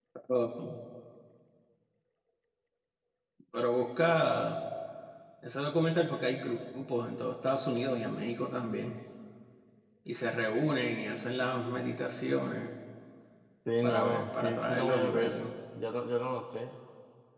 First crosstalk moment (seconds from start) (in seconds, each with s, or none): 13.8 s